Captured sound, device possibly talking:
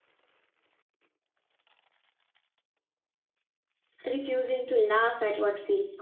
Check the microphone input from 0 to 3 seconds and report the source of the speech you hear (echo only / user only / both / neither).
neither